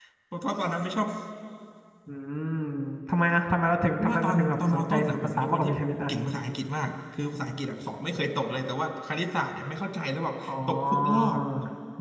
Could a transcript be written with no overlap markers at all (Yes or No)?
No